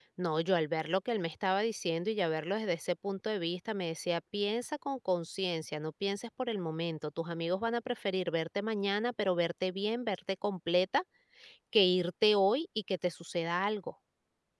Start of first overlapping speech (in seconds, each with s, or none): none